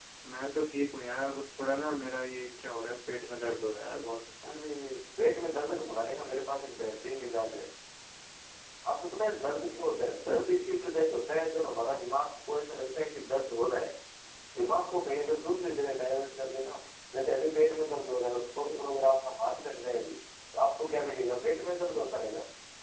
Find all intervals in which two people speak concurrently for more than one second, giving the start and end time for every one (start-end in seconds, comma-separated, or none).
none